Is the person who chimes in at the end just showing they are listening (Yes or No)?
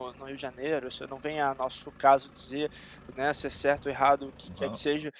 Yes